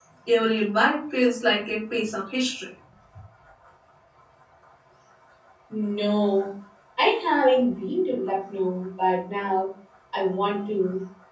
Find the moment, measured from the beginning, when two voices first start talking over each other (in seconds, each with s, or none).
none